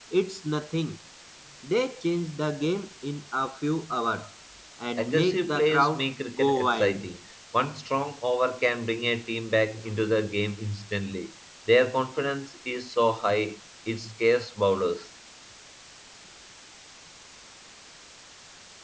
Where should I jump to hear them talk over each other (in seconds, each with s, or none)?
5.0 s